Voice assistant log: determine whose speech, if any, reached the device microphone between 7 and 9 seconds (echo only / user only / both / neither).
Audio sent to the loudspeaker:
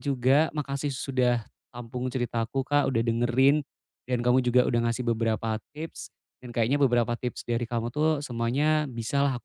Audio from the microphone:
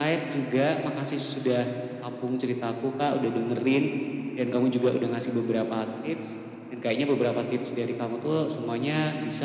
echo only